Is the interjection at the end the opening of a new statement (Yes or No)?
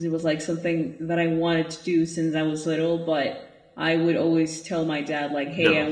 No